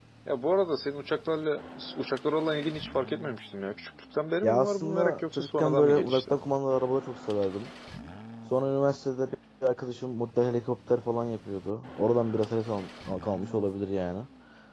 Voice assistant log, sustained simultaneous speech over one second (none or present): present